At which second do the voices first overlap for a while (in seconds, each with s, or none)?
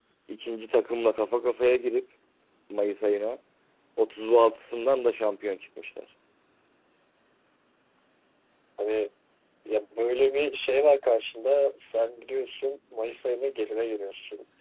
none